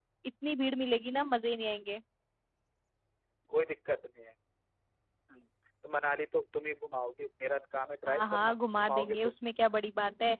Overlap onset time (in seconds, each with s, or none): 8.1 s